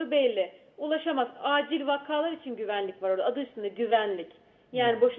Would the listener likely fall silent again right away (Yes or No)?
Yes